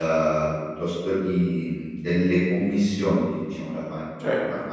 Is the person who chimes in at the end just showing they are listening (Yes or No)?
Yes